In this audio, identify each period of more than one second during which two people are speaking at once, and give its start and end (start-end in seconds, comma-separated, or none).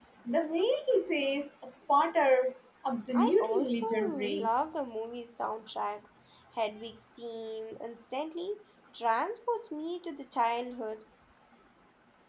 3.1-4.5